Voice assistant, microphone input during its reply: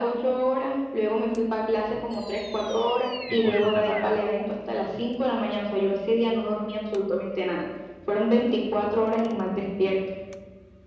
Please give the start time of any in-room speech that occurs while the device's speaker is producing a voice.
3.3 s

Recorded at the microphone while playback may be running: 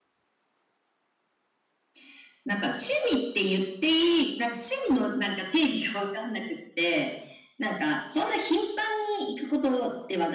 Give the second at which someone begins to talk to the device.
none

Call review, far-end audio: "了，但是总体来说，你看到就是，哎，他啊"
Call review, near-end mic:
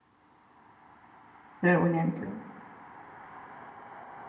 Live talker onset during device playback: 1.6 s

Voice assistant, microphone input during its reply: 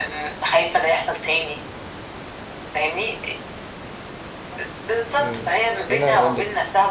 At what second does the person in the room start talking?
5.2 s

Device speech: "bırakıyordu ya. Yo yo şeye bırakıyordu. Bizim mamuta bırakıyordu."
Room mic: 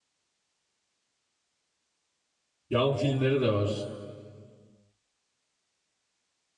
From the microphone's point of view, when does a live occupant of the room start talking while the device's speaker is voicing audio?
2.7 s

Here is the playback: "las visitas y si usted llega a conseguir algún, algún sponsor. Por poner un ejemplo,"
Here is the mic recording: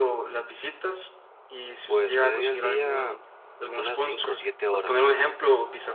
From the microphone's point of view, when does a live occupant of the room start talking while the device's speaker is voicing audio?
1.9 s

